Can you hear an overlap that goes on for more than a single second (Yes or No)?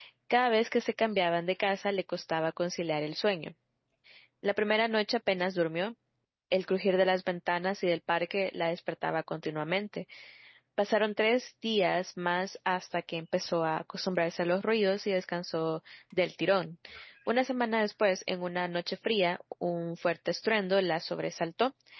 No